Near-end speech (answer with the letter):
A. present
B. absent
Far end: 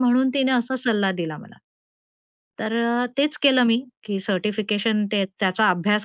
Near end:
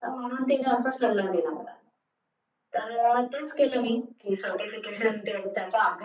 B